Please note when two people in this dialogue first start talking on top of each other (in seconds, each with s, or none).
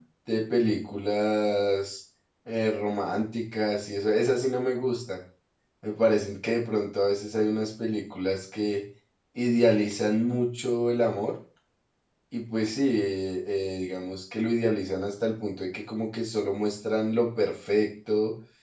none